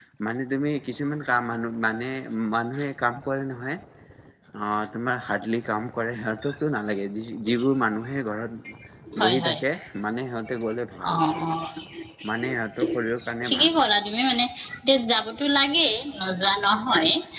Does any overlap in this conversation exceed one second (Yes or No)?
No